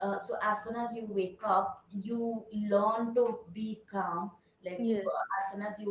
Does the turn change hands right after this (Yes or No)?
No